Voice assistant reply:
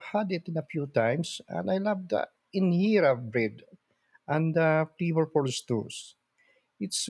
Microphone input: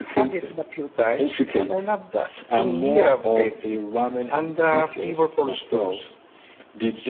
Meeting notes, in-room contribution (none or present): present